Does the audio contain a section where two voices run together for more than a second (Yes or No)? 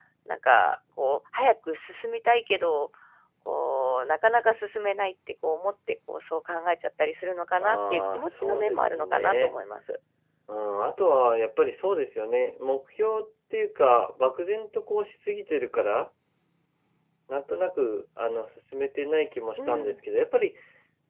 Yes